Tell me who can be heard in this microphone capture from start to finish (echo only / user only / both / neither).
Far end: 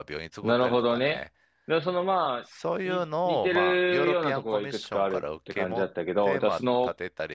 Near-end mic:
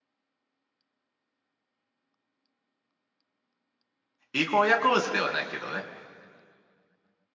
user only